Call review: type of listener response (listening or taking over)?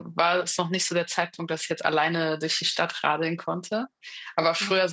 listening